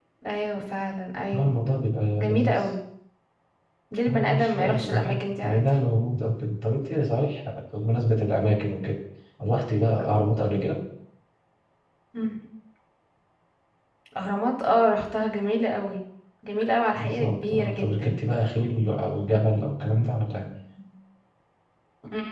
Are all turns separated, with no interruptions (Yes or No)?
No